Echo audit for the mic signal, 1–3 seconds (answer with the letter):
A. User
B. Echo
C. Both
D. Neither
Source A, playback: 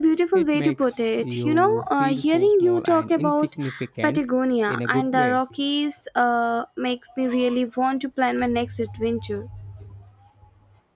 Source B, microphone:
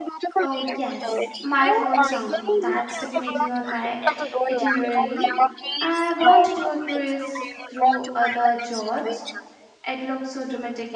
C